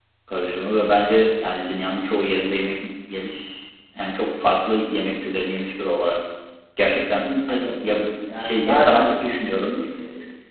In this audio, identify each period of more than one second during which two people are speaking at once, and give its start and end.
6.9-9.1

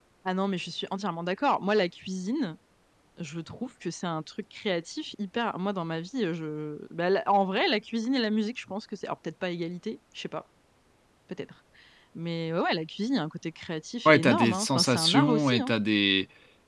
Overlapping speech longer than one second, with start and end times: 14.0-15.7

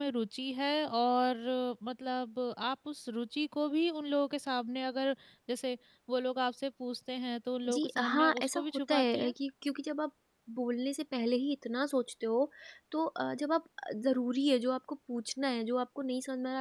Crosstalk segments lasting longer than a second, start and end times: 7.7-9.3

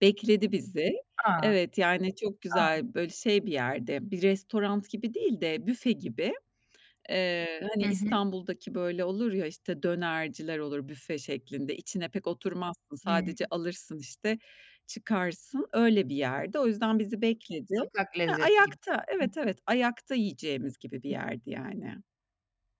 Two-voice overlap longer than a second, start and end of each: none

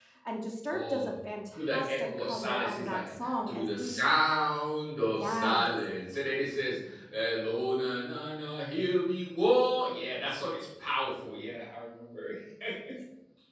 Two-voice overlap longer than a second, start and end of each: 1.6-4.0

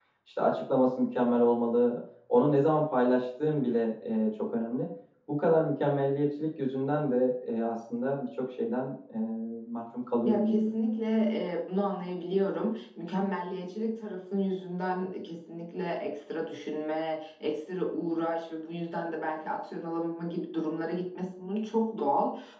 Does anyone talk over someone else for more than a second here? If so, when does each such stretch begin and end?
none

